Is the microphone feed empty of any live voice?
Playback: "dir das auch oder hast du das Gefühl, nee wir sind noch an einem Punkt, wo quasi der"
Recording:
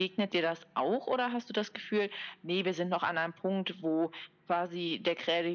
Yes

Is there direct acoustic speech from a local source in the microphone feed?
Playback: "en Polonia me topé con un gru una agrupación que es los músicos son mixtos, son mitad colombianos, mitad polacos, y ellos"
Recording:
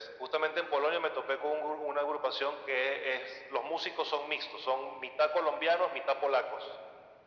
No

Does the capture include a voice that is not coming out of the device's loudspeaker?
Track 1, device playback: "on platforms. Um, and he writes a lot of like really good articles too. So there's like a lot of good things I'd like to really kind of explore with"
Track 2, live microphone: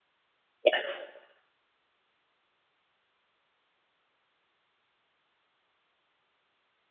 Yes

